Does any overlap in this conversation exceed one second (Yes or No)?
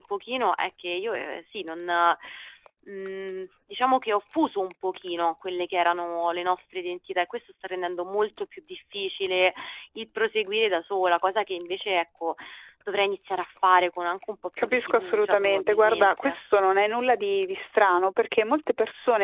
Yes